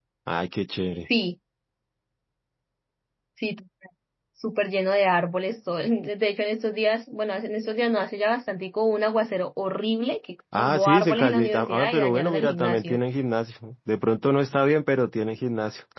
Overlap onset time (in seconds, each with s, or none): 10.5 s